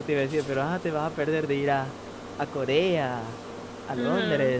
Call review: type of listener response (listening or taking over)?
taking over